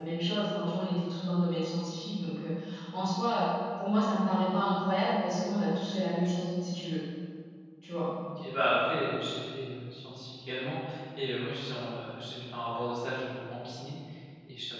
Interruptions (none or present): none